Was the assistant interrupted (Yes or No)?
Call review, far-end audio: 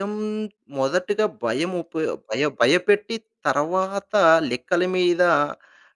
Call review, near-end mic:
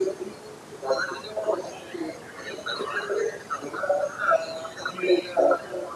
No